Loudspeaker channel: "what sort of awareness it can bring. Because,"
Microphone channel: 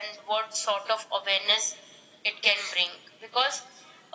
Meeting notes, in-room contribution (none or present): none